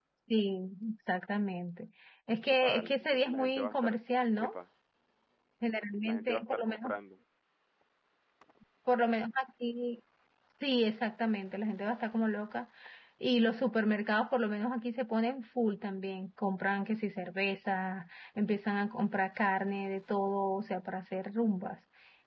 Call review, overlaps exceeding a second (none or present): present